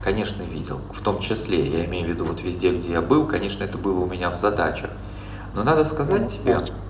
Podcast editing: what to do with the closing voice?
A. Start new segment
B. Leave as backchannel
B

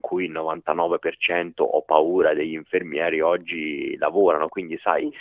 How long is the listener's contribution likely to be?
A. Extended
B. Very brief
B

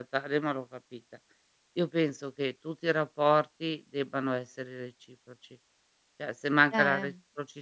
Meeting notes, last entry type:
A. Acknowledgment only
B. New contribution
A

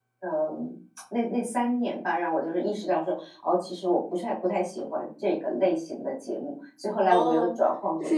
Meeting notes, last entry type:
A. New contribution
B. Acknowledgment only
A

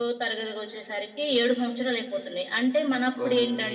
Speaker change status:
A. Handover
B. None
B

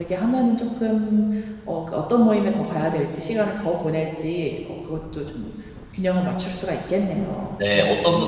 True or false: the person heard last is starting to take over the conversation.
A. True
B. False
A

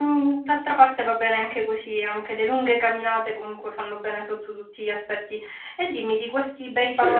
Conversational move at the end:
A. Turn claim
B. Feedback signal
B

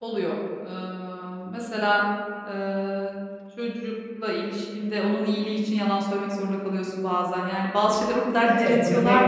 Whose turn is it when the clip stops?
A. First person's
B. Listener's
B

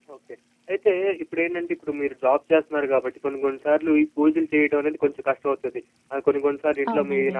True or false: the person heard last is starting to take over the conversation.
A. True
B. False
B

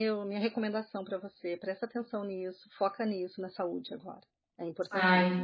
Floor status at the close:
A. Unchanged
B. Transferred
B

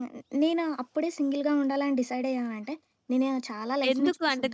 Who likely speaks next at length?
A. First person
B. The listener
B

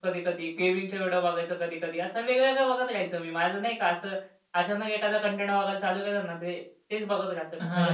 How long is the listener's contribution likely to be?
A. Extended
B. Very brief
A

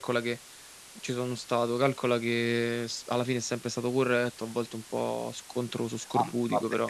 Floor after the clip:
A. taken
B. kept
A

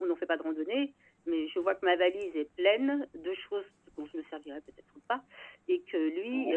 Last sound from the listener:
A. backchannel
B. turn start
A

